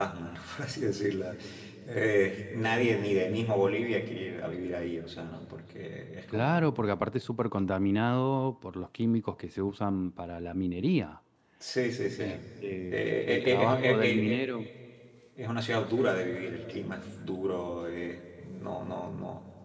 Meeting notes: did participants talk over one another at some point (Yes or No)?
Yes